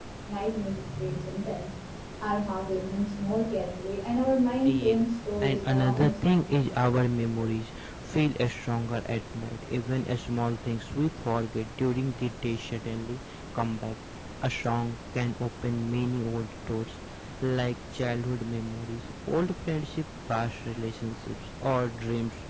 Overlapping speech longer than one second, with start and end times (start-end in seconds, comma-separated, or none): 4.6-6.5